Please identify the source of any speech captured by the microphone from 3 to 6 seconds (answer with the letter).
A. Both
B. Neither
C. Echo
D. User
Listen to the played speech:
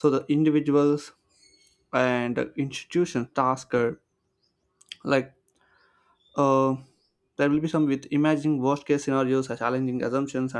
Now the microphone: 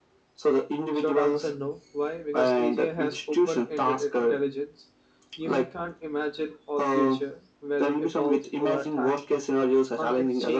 A